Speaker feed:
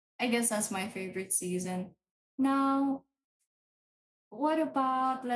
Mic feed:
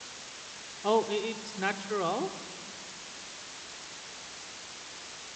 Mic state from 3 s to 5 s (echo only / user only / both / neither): neither